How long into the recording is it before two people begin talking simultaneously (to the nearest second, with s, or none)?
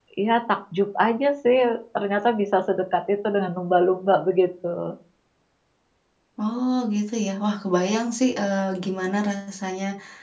none